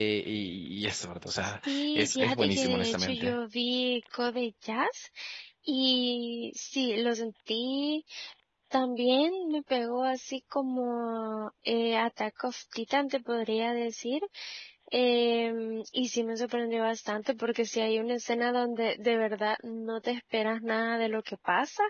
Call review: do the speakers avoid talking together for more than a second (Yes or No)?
No